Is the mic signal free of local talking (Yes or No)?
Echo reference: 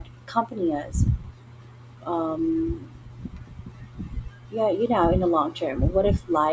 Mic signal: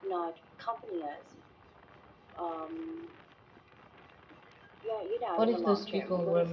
No